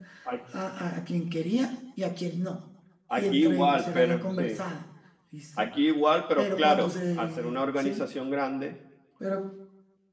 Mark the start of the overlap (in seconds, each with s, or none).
3.1 s